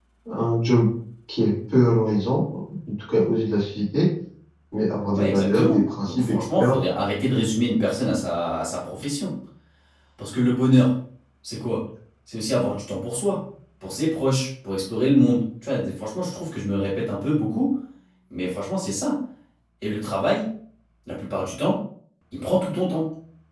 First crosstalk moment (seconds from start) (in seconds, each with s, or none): 5.1 s